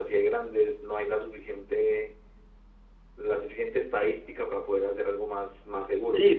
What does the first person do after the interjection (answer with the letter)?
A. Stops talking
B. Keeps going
A